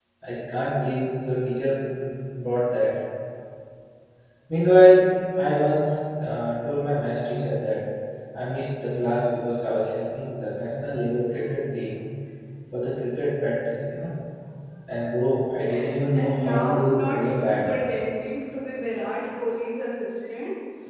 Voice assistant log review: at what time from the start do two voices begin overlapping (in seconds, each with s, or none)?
16.0 s